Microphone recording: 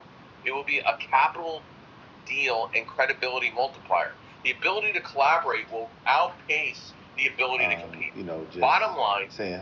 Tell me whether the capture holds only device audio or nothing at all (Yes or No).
No